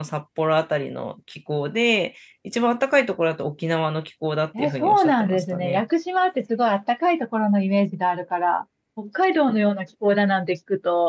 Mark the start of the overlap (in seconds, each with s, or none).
4.5 s